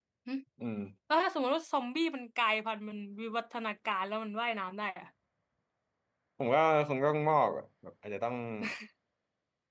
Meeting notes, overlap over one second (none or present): none